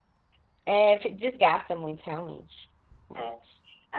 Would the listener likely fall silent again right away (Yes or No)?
No